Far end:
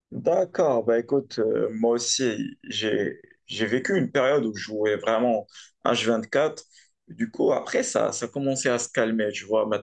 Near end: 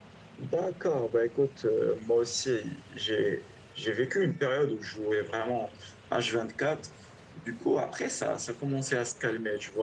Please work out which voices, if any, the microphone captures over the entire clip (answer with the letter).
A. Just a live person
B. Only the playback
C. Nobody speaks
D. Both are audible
B